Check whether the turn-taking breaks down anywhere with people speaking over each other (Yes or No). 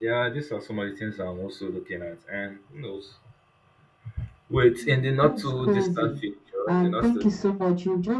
Yes